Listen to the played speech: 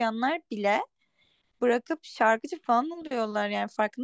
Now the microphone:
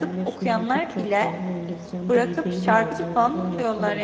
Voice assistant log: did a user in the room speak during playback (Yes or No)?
Yes